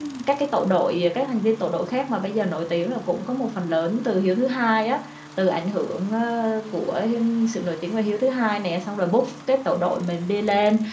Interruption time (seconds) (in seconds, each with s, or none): none